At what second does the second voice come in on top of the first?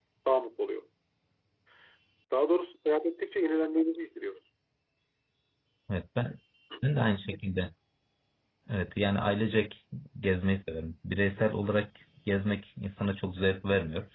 none

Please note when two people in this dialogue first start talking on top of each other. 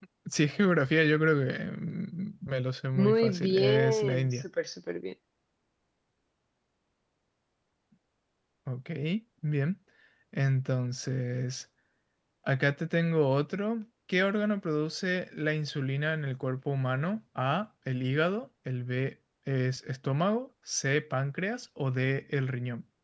3.0 s

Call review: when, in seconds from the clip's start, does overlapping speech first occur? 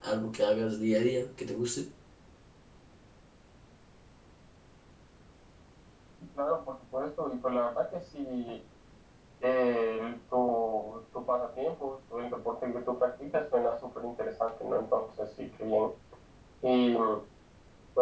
none

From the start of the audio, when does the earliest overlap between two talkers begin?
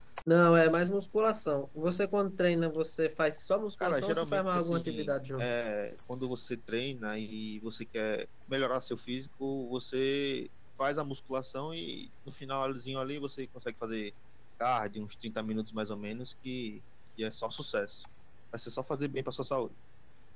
3.8 s

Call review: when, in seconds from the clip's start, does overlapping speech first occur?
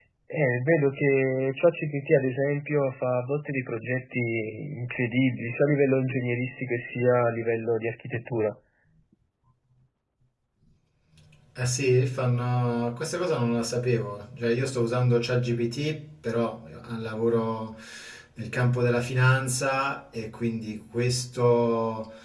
none

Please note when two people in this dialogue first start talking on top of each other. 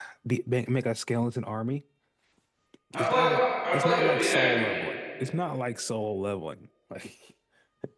2.9 s

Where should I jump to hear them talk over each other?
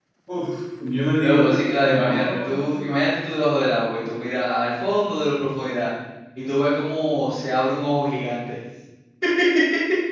1.2 s

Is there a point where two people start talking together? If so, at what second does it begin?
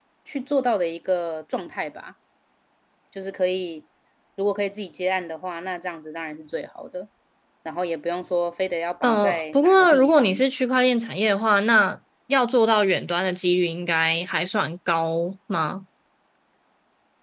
9.0 s

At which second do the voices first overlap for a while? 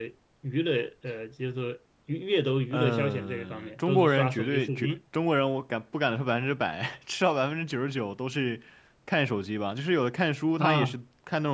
2.7 s

